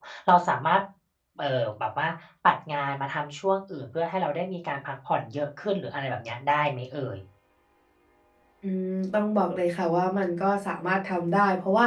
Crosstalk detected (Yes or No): No